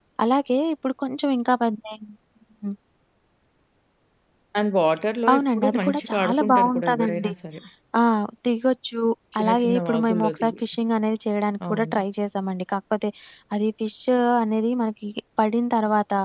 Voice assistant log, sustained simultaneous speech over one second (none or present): present